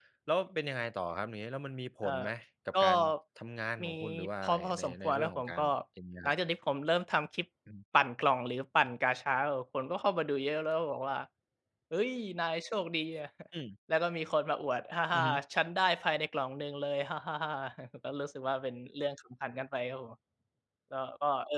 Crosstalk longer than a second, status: present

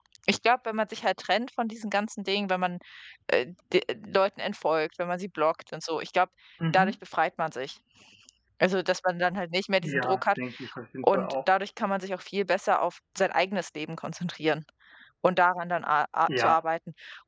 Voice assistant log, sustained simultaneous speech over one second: none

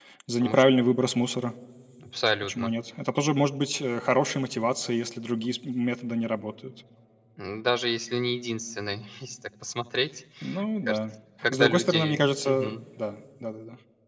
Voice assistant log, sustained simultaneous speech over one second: present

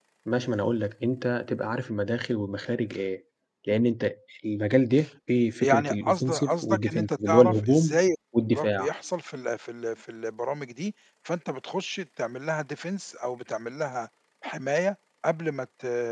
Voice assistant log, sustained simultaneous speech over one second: present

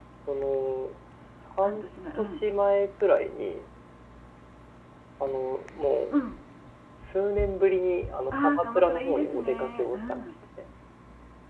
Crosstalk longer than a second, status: present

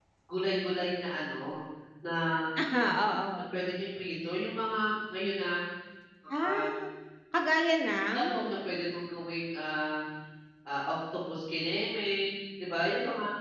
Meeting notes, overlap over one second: none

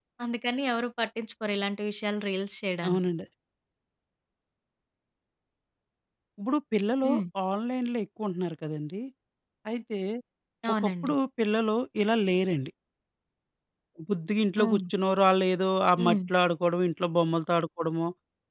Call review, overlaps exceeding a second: none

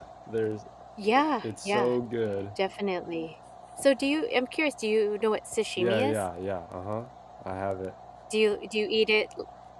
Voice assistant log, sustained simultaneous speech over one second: none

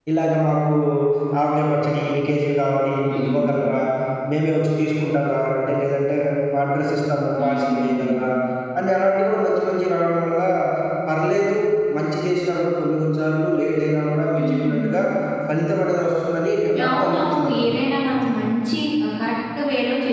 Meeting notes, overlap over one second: present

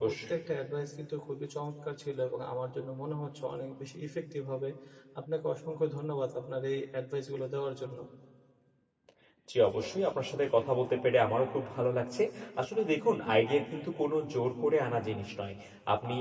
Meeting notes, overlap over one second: none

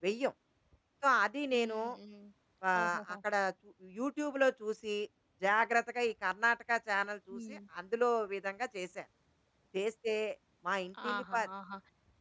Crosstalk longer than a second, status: none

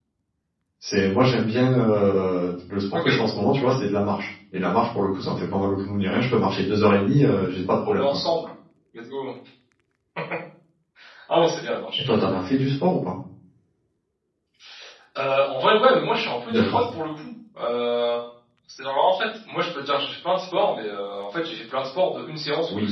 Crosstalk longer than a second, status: none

